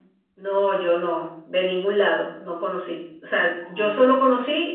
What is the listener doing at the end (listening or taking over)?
listening